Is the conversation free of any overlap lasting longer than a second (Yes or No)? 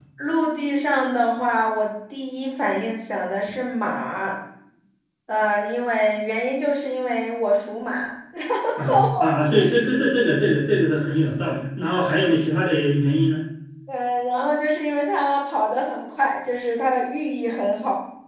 Yes